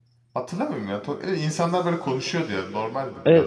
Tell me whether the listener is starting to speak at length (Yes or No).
Yes